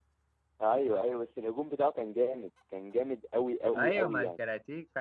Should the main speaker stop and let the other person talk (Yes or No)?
Yes